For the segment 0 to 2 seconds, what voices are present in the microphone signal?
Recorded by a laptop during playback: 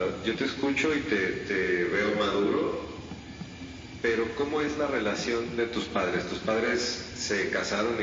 echo only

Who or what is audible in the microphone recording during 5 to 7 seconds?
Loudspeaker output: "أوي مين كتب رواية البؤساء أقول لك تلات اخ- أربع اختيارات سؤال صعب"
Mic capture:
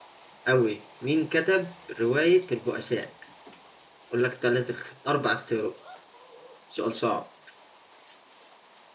echo only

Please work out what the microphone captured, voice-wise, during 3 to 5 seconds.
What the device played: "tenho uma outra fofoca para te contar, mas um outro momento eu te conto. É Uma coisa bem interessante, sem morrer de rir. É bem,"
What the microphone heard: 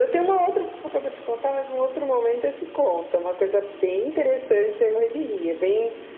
echo only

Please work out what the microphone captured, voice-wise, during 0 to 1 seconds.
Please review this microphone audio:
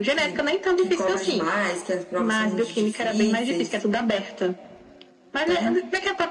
echo only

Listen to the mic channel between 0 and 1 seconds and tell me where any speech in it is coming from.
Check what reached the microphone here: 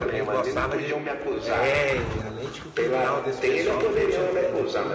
both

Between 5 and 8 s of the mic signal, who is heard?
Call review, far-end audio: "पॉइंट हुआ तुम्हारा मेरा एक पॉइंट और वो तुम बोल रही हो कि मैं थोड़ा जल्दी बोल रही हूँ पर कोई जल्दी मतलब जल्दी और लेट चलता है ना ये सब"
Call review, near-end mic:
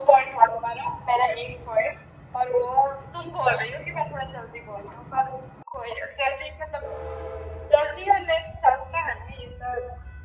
echo only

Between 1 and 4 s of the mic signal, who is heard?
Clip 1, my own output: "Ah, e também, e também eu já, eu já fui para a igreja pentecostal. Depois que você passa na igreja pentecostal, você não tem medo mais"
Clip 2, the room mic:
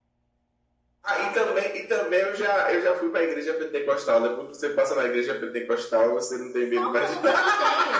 echo only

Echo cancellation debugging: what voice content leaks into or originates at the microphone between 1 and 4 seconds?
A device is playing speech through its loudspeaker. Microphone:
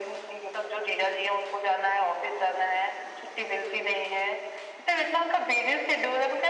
echo only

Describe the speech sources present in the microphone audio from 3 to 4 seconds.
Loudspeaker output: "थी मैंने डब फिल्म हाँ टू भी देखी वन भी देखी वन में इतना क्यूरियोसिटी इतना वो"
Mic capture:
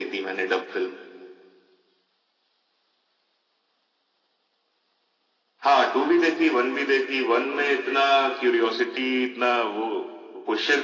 neither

